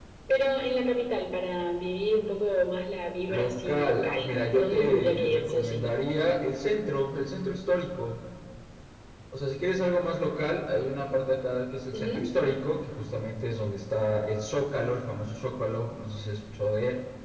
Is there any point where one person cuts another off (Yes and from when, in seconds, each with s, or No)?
Yes, from 3.3 s